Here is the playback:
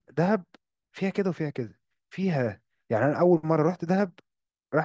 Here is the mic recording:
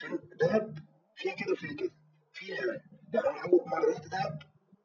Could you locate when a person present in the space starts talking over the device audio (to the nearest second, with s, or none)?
none